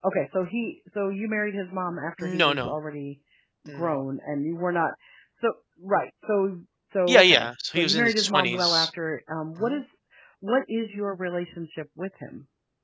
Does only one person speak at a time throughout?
No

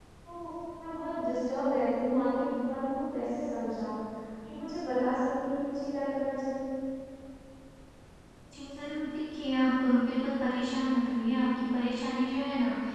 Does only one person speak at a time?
Yes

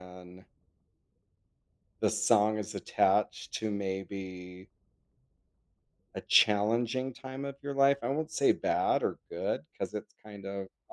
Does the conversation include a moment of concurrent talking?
No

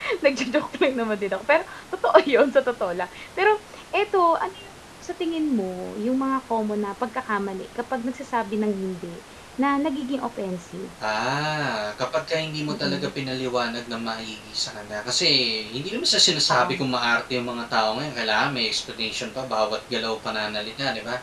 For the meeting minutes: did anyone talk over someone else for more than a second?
No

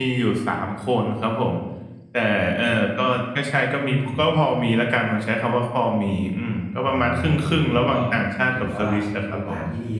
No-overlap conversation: No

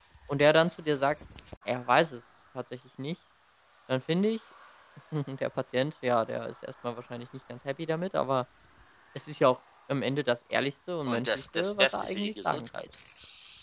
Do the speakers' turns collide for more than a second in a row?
Yes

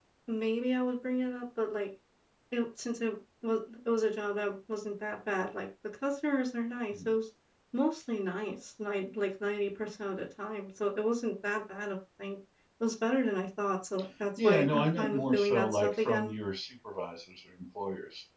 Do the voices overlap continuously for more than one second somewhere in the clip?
Yes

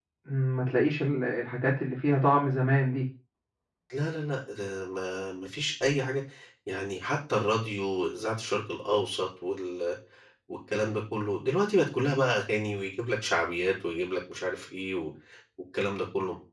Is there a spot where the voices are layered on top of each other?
No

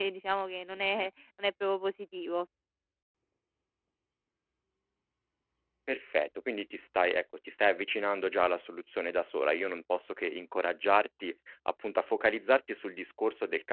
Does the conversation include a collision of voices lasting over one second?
No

